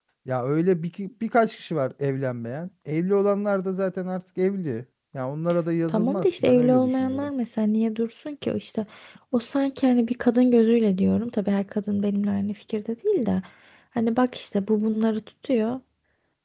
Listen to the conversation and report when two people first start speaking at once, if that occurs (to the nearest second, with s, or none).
6 s